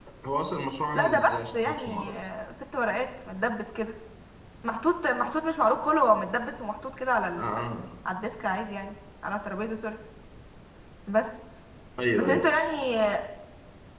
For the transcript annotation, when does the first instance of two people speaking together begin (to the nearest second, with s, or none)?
1 s